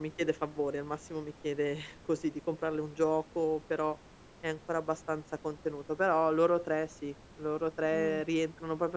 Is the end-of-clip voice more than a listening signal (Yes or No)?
No